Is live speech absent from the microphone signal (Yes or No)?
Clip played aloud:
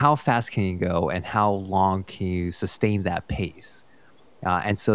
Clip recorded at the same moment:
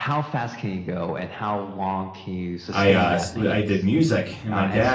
No